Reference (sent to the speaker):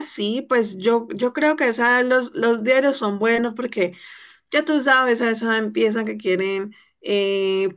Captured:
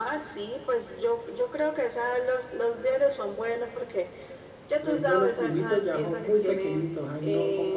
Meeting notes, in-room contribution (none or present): present